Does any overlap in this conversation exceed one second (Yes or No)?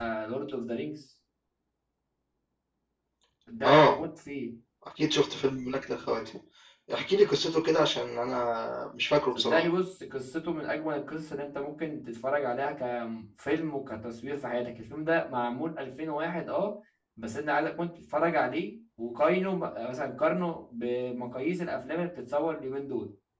No